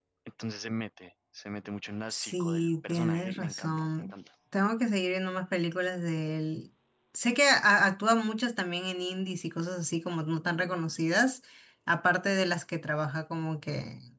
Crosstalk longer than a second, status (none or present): present